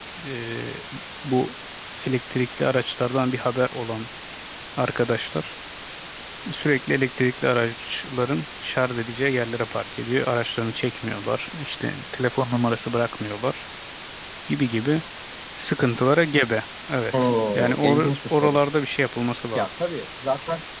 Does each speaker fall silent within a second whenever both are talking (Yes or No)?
No